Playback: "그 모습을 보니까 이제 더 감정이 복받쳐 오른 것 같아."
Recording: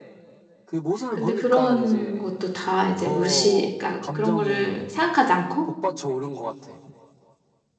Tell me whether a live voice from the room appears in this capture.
Yes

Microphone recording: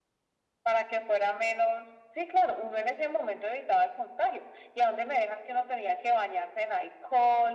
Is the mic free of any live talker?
Yes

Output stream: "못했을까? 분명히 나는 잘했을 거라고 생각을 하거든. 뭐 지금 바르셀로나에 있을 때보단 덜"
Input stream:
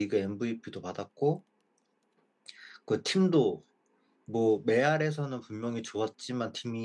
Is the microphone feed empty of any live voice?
No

